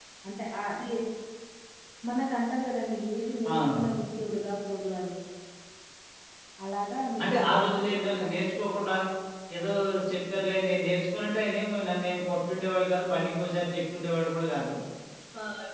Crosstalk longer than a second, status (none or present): present